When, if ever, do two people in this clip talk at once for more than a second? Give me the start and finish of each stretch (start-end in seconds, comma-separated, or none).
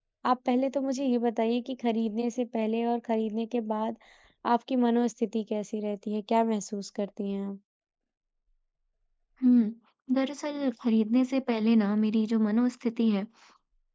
none